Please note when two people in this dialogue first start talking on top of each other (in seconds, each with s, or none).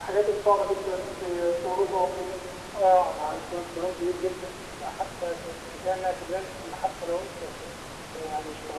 none